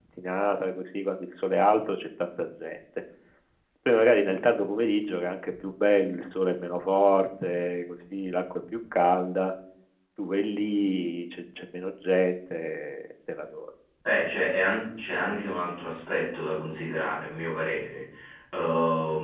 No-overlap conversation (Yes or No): Yes